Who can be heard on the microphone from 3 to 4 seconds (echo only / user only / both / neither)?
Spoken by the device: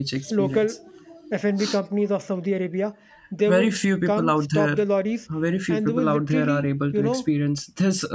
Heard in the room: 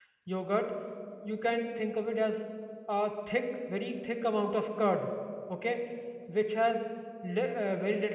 user only